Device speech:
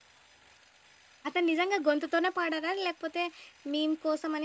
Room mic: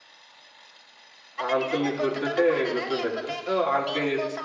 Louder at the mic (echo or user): user